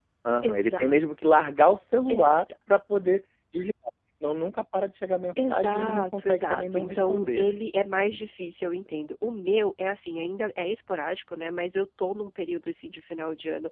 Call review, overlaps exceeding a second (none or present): present